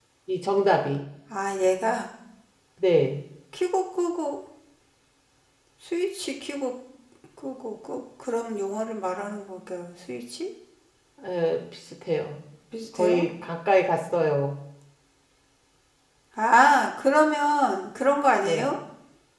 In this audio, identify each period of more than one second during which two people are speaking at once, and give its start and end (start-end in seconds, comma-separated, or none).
none